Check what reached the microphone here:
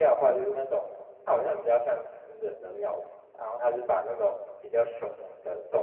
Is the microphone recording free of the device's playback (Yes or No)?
Yes